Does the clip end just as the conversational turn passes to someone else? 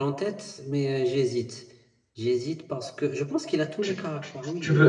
Yes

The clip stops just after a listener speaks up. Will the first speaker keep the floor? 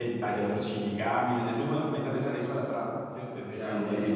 No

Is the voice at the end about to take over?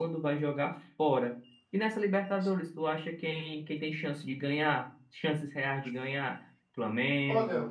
No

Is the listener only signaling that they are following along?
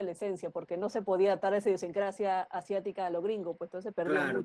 No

